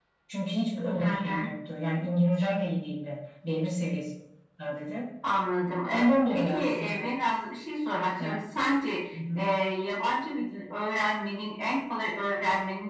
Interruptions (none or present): present